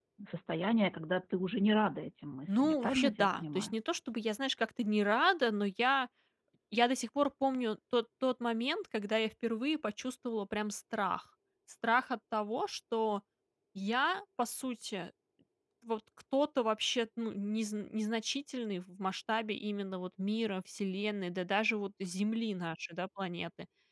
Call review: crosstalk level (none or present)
present